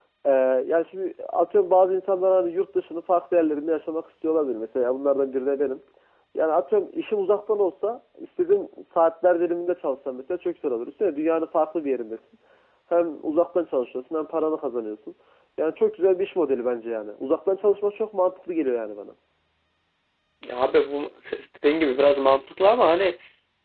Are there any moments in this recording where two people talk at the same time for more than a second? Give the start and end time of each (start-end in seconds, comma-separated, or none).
none